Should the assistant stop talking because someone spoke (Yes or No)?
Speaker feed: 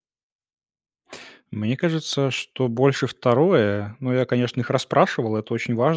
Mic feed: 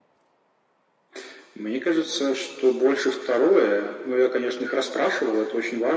No